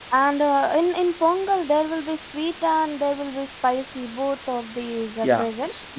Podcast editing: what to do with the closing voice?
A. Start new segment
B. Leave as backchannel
A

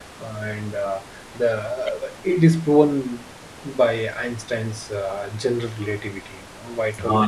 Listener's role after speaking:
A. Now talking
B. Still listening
A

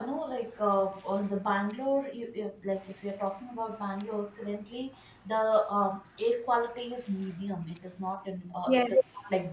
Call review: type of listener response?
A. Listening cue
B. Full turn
A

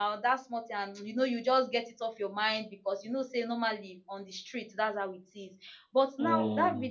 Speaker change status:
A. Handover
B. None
B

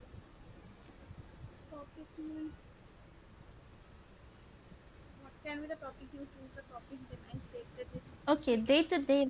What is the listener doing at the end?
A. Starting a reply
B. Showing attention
A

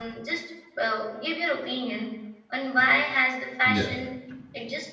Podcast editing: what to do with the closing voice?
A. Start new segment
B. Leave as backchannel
B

